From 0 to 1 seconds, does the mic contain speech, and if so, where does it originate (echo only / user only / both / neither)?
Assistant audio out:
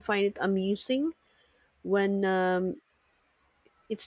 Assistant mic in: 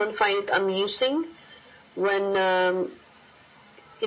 echo only